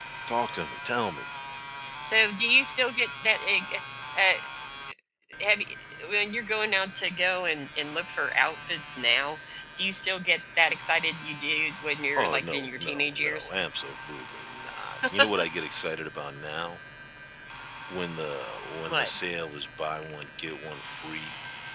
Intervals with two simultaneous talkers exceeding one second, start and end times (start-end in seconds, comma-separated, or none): 12.2-13.5